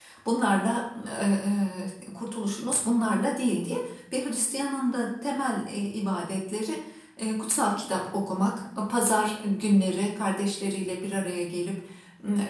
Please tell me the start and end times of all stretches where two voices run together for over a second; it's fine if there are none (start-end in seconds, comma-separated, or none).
none